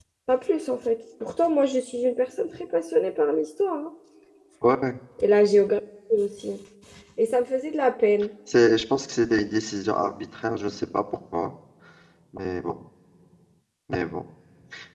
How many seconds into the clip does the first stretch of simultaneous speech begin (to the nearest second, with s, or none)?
none